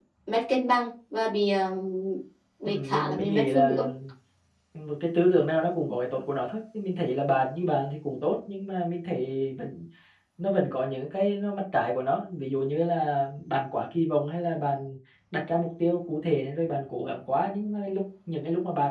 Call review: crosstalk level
present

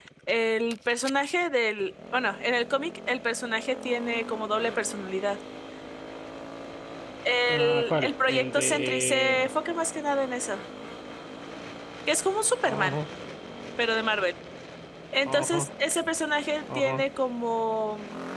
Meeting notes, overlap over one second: present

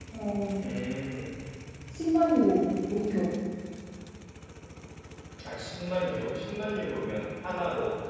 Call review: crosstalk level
none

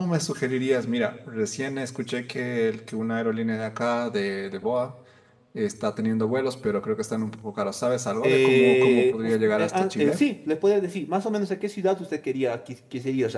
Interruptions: present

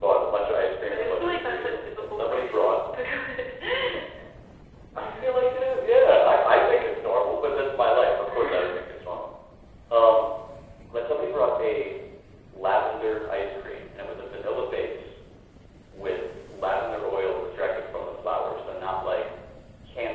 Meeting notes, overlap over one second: present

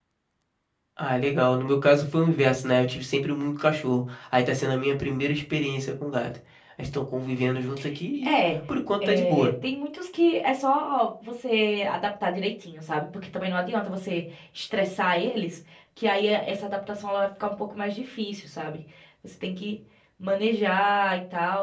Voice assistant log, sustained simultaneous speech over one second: none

